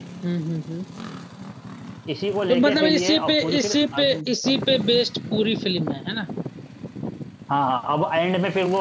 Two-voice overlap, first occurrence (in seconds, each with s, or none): 2.5 s